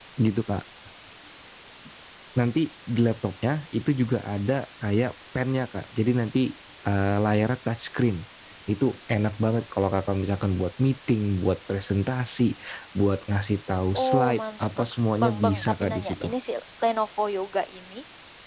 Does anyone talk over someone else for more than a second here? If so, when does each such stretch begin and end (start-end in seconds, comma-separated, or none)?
13.9-16.3